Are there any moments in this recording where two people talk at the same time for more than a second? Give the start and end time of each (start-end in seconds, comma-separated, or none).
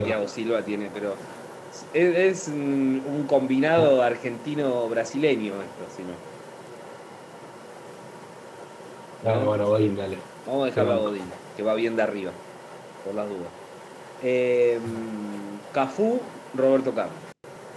none